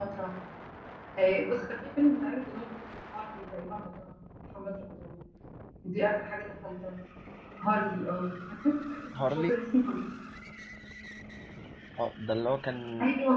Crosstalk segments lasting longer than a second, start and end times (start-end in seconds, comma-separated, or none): none